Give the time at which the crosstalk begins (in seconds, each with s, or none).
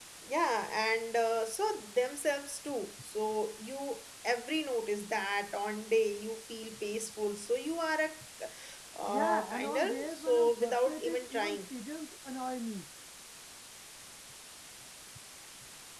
9.1 s